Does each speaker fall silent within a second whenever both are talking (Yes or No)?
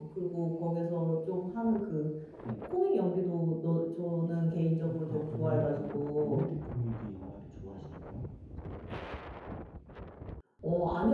No